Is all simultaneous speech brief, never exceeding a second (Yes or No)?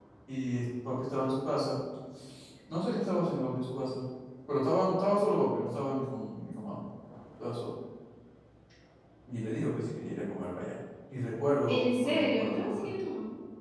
No